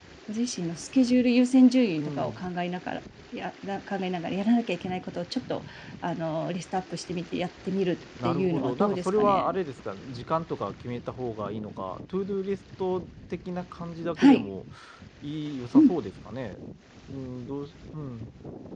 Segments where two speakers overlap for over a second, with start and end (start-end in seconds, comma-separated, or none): 8.2-9.5